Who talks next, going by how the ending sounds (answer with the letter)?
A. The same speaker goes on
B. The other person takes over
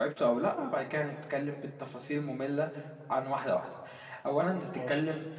A